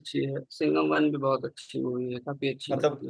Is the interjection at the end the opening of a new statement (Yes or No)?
Yes